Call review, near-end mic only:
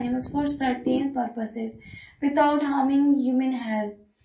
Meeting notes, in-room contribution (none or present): none